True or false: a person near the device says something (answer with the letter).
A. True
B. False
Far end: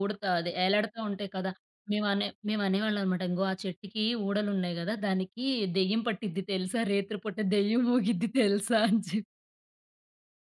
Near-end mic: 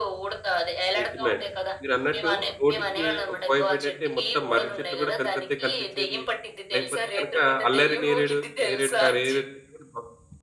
A